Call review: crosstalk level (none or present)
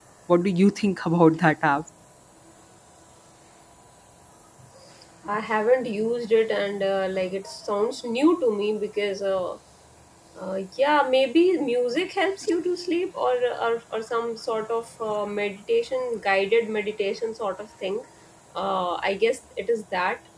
none